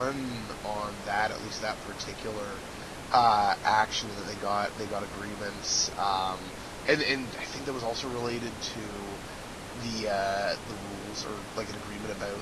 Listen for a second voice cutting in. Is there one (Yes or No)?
No